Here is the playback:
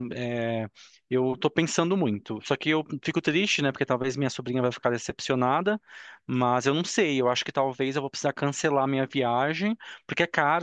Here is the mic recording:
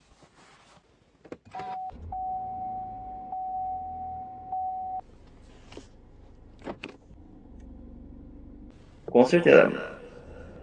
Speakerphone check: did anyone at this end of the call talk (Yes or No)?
Yes